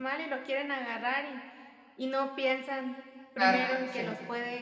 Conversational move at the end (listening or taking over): listening